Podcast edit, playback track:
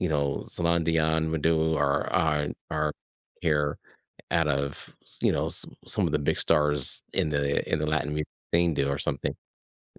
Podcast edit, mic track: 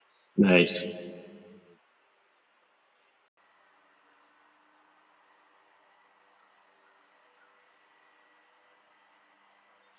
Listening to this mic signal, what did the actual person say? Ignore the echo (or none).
Nice.